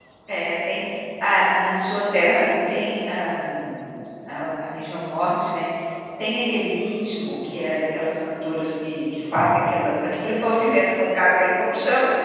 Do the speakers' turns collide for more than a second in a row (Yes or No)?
No